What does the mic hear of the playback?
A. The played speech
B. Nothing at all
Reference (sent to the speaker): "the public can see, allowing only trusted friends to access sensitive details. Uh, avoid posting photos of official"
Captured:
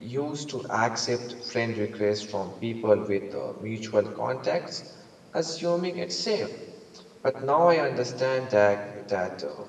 B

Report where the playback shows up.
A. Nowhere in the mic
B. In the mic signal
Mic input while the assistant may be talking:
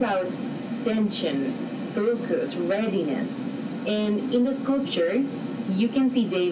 B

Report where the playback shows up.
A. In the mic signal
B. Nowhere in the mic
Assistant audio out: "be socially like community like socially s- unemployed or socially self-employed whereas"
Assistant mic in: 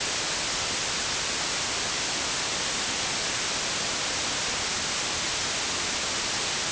B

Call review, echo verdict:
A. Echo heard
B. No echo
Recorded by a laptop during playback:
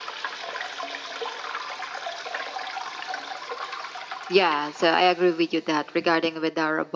B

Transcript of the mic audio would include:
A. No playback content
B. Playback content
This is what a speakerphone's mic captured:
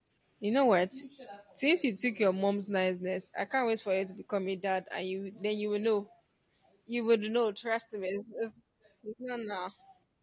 A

